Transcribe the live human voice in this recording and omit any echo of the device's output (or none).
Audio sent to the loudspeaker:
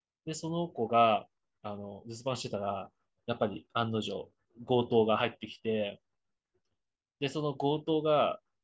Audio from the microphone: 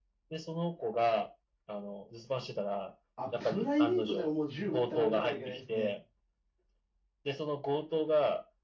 あ、プライベートでももう銃持って歩かなきゃいけないですね。